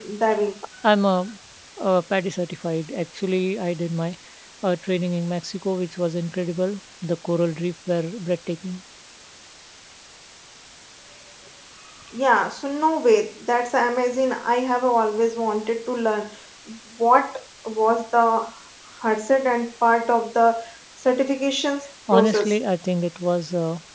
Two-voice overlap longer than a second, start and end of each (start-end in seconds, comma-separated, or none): none